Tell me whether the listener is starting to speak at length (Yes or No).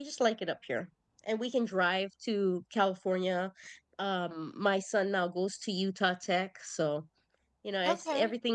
No